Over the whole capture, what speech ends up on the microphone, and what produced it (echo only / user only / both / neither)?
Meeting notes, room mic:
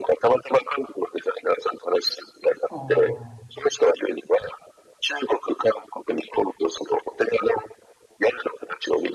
both